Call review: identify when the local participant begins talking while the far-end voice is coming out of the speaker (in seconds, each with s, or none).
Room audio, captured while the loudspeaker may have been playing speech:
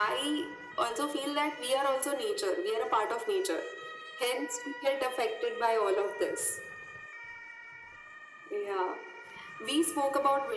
none